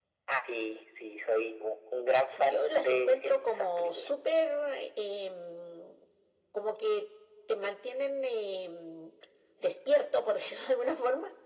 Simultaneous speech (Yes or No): Yes